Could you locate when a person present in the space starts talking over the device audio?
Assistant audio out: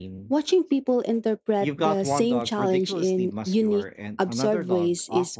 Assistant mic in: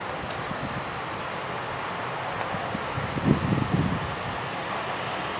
none

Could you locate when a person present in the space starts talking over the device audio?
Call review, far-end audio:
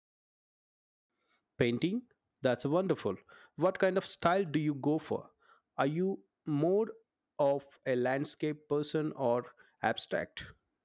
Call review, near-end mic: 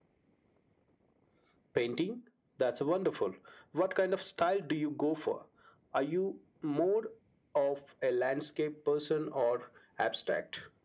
none

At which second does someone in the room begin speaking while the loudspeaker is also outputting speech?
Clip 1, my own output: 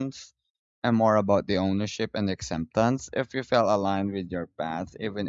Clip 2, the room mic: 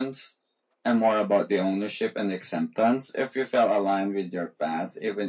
none

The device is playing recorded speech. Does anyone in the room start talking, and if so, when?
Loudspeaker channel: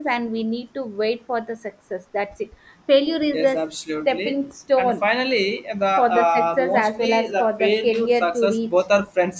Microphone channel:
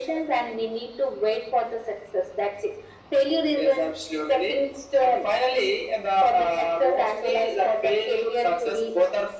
none

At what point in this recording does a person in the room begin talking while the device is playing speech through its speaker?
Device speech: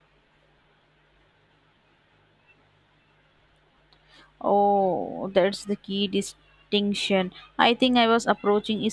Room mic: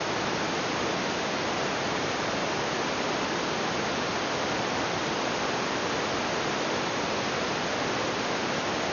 none

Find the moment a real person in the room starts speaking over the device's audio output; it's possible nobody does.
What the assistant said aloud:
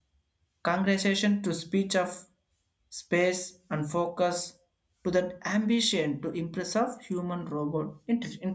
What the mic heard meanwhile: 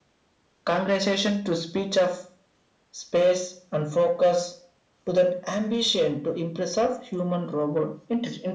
none

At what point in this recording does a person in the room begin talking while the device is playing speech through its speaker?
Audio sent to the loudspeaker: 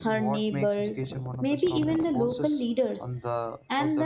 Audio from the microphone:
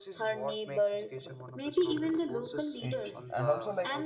2.8 s

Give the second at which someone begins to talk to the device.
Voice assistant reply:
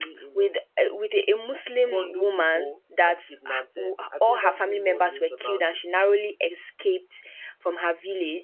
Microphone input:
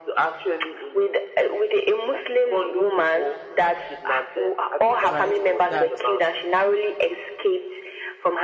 5.1 s

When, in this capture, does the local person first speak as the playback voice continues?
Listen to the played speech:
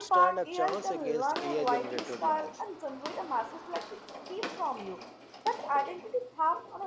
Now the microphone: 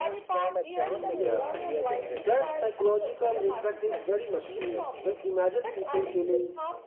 0.8 s

